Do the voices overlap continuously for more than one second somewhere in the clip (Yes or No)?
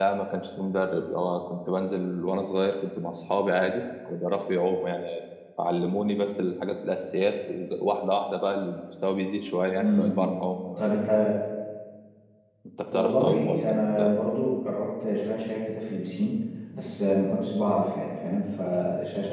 Yes